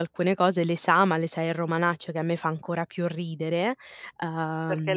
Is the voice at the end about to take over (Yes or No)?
Yes